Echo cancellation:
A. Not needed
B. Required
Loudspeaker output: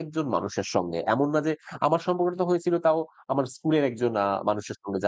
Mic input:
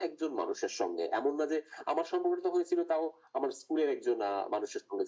B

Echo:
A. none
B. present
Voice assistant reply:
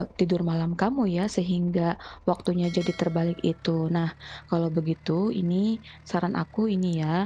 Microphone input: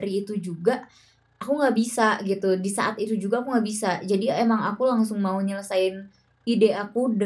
A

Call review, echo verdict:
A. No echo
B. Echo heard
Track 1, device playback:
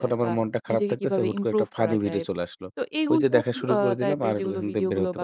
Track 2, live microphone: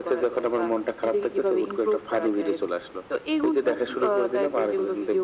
B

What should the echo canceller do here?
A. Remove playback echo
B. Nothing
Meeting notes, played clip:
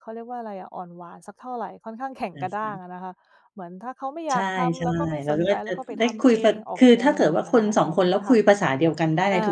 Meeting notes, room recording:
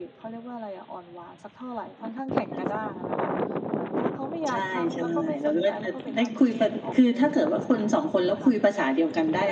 A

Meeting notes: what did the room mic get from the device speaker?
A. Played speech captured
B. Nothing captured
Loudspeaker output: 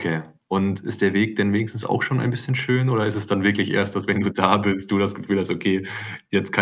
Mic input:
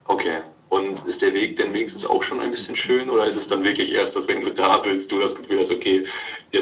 A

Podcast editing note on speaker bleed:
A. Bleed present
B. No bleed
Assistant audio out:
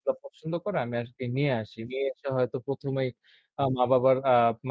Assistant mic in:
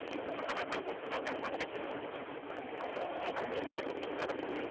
B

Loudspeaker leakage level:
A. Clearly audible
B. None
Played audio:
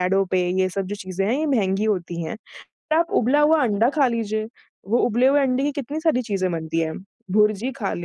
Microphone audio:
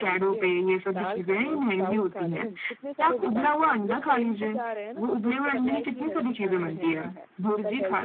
A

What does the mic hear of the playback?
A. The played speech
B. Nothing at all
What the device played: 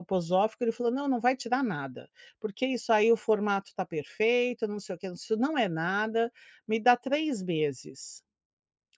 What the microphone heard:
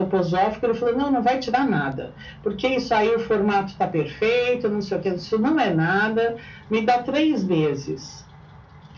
A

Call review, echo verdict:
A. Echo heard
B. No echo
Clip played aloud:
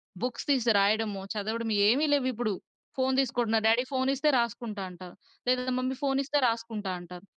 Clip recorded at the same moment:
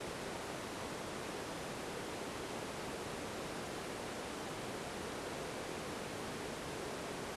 B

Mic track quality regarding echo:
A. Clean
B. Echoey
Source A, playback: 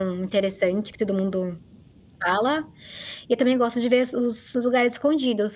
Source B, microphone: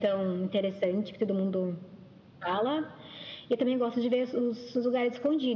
B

